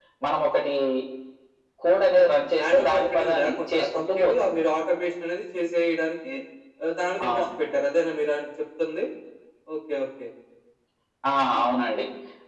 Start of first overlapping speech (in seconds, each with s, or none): 2.2 s